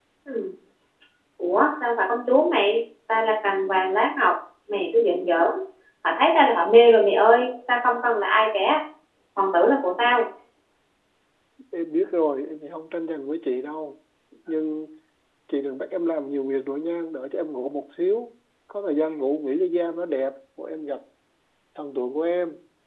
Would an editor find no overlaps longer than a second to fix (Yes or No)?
Yes